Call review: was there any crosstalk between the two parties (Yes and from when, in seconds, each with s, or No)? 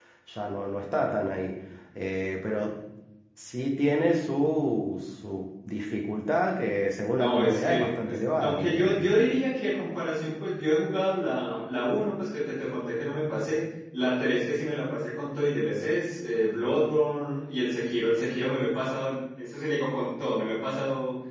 Yes, from 7.1 s